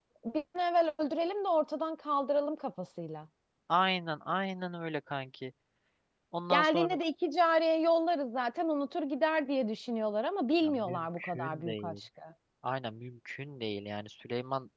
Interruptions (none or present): present